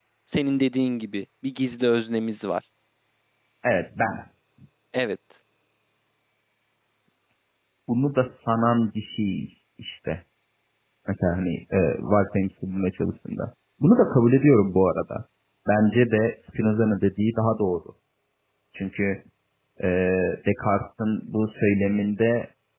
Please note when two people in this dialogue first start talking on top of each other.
none

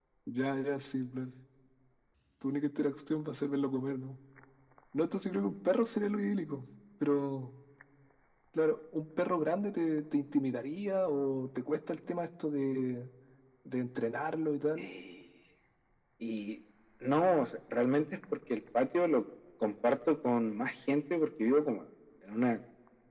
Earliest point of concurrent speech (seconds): none

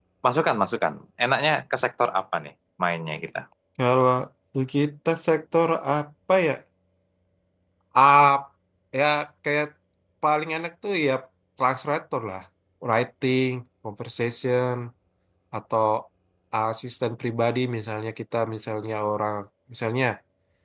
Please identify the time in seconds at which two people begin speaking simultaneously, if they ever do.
none

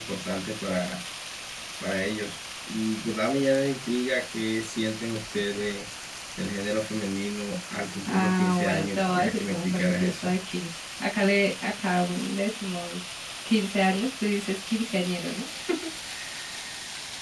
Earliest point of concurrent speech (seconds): 8.1 s

